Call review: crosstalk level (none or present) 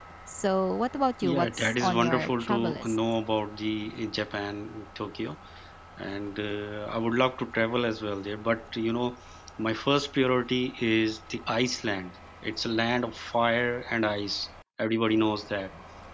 present